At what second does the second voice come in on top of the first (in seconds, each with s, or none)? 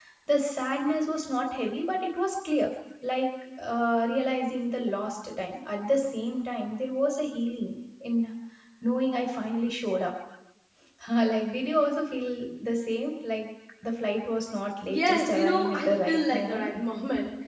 14.9 s